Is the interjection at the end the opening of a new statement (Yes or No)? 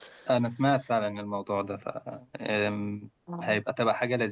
No